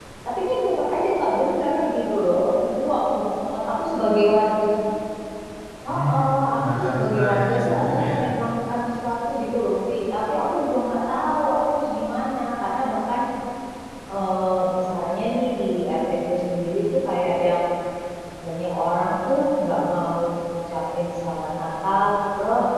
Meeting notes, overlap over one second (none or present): present